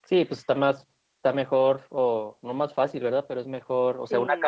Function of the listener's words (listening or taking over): listening